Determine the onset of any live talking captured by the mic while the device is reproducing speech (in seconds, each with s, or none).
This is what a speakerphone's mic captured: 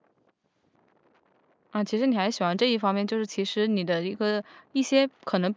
1.7 s